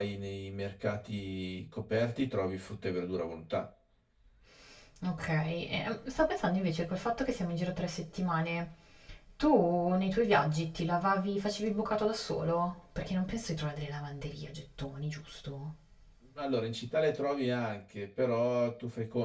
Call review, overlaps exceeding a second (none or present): none